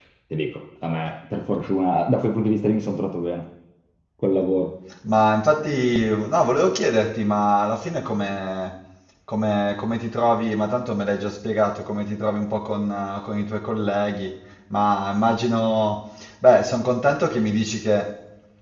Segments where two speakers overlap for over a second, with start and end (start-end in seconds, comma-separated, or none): none